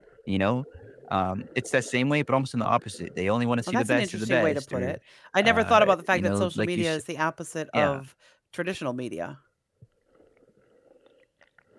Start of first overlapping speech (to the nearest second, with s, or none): 4 s